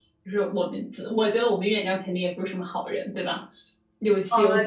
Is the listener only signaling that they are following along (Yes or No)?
No